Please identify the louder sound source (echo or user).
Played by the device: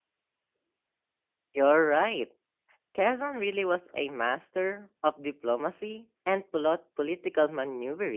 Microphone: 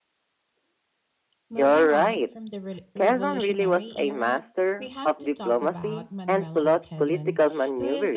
echo